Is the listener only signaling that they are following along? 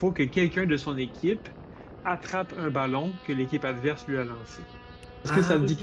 No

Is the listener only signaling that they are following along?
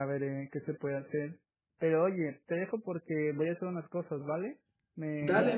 No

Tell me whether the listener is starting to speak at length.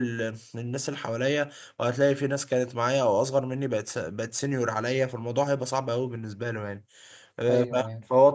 No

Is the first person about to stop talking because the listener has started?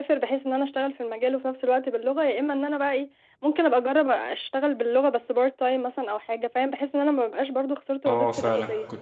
Yes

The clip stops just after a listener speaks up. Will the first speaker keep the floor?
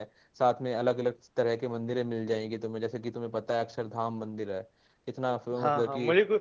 No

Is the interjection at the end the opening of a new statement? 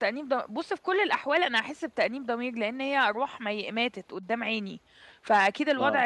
No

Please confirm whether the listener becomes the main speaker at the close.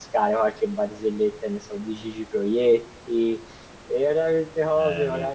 No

